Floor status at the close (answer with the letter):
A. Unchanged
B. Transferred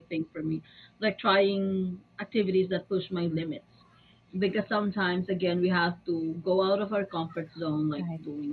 A